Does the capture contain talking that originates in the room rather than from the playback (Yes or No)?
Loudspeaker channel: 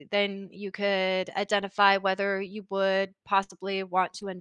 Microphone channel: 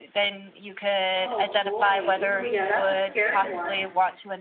Yes